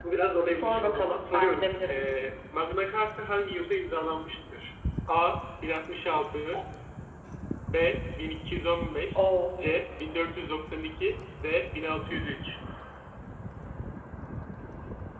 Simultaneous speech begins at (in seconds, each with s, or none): 0.5 s